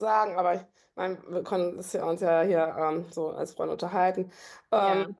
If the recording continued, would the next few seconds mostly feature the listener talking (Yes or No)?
No